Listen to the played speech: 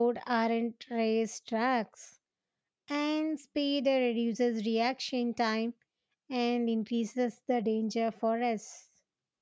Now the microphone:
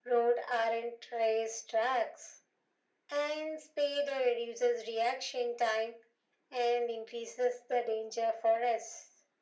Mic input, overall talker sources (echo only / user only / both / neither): echo only